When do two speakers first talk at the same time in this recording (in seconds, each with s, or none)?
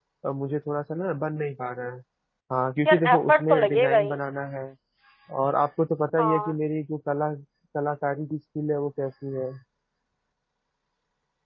2.9 s